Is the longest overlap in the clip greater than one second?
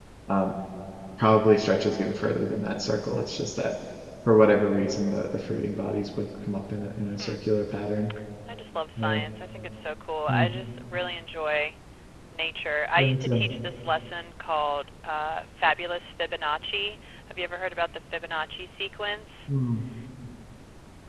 No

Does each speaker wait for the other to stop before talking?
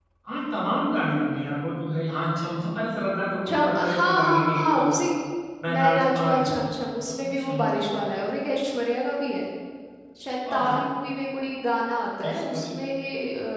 No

